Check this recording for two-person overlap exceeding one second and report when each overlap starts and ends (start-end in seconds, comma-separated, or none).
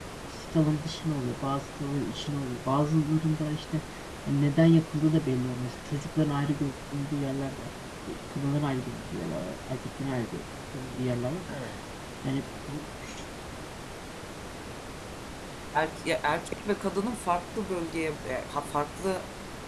none